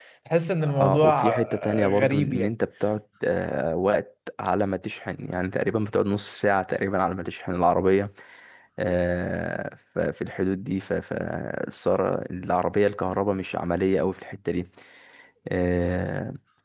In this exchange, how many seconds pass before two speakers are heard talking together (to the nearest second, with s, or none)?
1 s